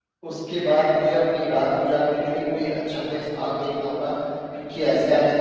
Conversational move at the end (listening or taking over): taking over